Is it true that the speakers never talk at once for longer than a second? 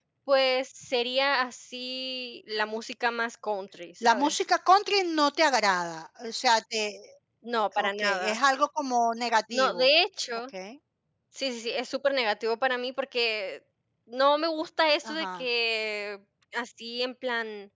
Yes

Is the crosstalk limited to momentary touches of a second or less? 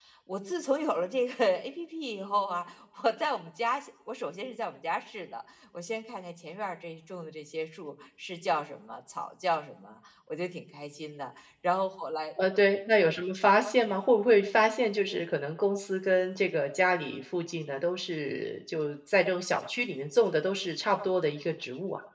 Yes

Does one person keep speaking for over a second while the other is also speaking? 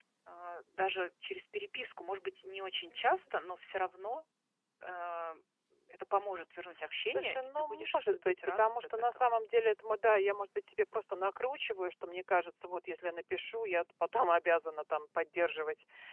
Yes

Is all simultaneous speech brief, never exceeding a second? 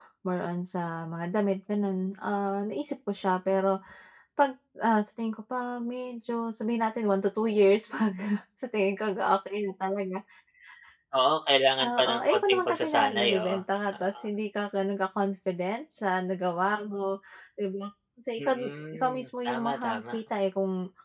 No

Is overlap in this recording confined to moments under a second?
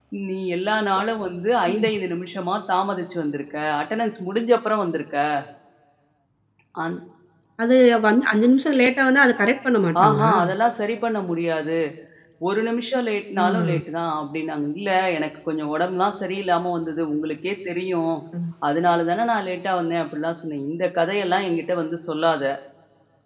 Yes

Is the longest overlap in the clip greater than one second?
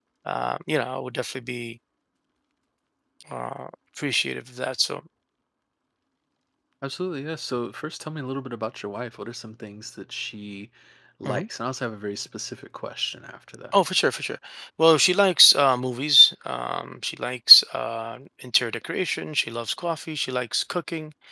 No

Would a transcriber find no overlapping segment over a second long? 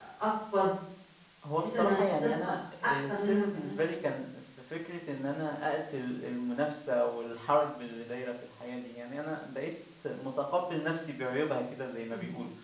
No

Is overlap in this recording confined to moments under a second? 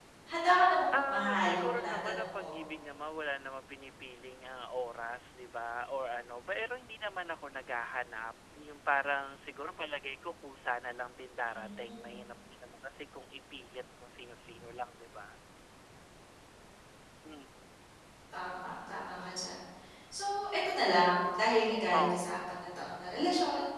No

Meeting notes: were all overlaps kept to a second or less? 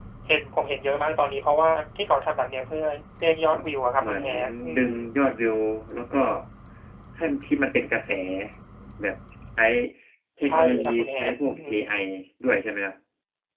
No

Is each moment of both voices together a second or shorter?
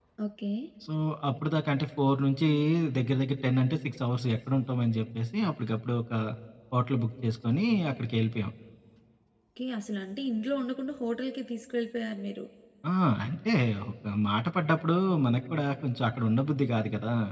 Yes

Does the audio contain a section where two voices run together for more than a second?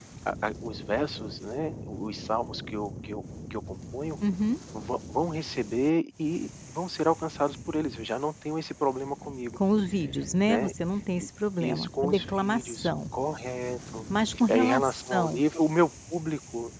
Yes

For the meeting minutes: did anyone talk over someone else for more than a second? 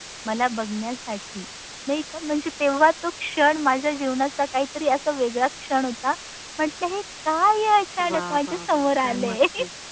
Yes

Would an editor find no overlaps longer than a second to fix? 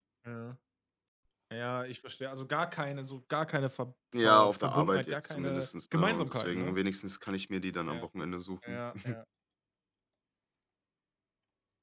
No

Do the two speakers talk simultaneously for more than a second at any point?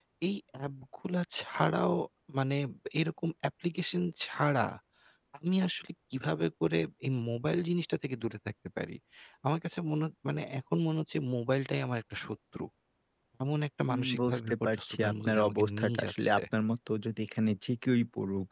Yes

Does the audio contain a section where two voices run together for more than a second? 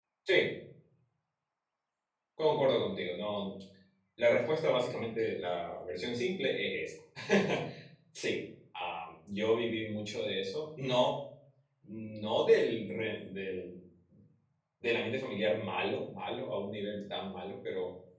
No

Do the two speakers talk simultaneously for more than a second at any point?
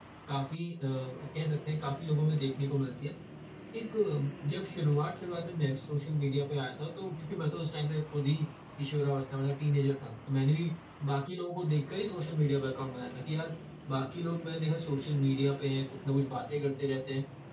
No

